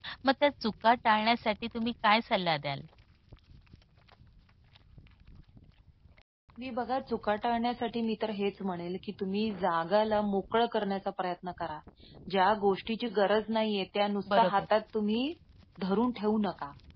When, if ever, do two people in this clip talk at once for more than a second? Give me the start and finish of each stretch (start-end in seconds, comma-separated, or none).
none